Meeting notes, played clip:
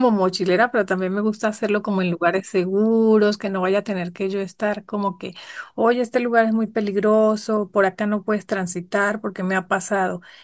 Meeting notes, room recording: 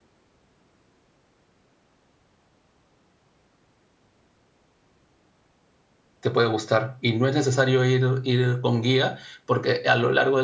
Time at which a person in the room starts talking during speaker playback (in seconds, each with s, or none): 6.2 s